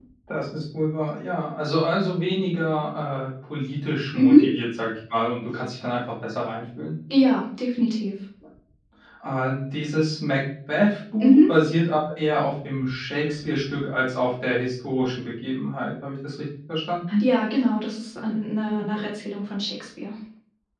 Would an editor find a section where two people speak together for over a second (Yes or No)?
No